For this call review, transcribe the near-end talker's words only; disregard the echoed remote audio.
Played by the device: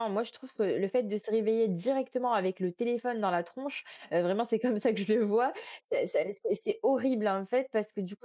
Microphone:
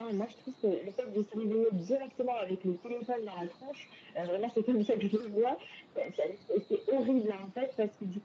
none

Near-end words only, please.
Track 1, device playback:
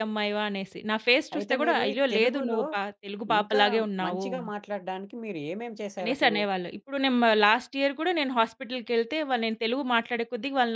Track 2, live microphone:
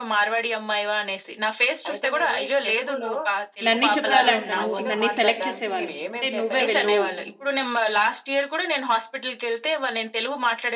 నన్నే చెప్పేవాళ్ళంట. నువ్వు నన్నే సెలెక్ట్ చేసేవాళ్ళు. అంటే "నువ్వే వెళ్ళు.

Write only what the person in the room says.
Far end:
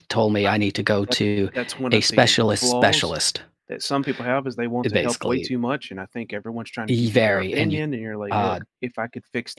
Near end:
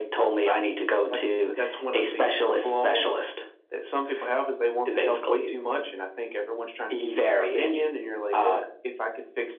none

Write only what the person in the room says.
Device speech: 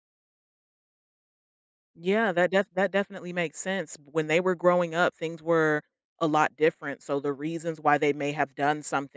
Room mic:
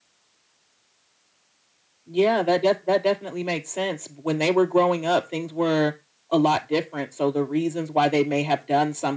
none

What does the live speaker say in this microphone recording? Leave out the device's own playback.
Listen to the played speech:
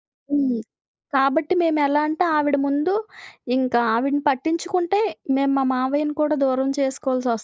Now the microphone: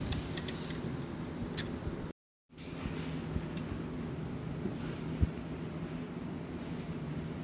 none

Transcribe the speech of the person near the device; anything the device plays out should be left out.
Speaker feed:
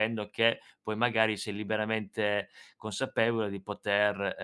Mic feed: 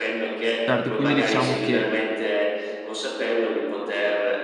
Certo, quindi diciamo che

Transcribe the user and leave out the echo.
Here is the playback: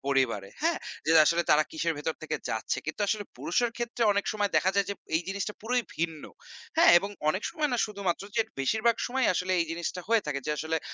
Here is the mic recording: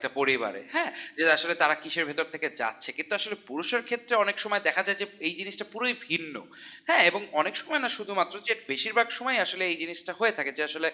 none

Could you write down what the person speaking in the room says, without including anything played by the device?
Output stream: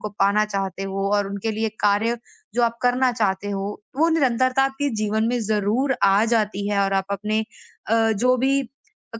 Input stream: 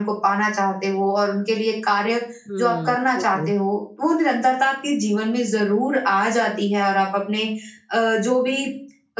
हुँ, बिल्कुल।

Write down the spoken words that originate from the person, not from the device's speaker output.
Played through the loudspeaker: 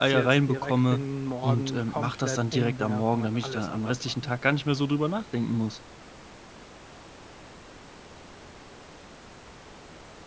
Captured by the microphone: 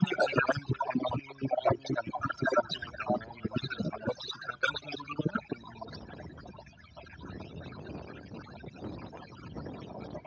none

